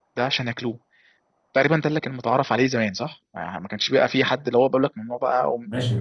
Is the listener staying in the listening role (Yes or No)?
No